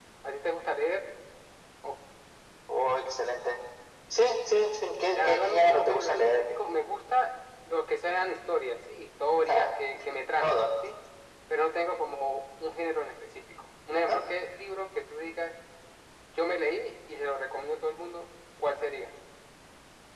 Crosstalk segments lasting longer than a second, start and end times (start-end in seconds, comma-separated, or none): 5.1-6.5